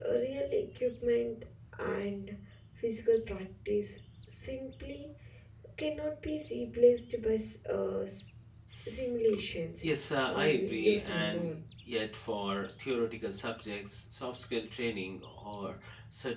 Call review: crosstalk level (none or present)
present